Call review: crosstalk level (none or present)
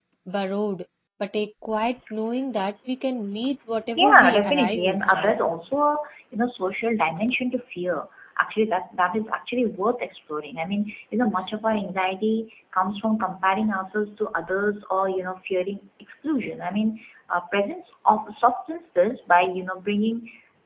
present